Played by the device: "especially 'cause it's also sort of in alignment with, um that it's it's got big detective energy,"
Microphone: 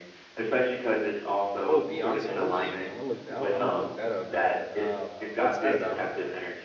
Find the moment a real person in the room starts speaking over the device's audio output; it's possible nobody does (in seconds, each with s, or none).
1.6 s